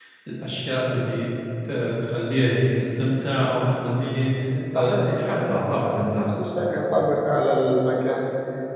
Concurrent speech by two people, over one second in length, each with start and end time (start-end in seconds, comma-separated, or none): 4.7-6.4